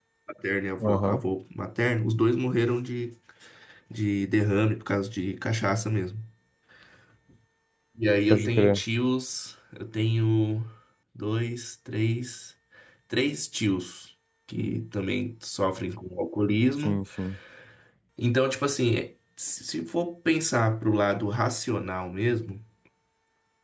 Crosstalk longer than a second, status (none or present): none